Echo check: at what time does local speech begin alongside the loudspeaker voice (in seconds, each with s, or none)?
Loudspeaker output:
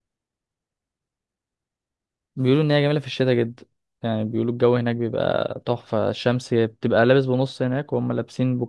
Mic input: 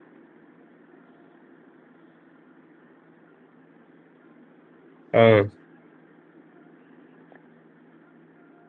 5.1 s